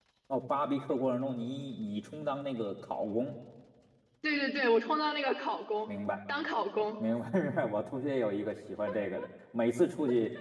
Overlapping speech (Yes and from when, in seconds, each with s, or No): No